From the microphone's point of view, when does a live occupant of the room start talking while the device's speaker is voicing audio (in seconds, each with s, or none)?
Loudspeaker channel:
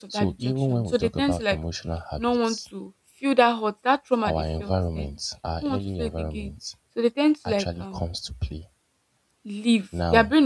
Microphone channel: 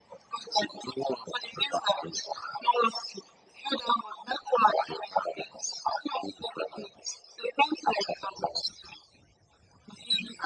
none